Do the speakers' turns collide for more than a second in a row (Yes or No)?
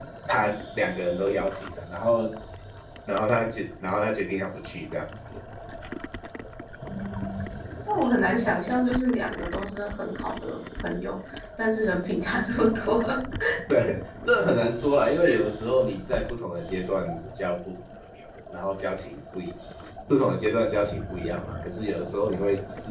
No